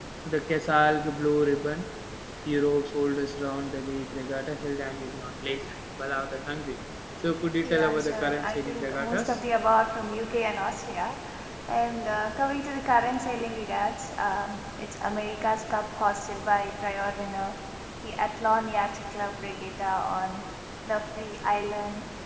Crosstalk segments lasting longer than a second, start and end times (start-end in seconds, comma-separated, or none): 7.6-9.4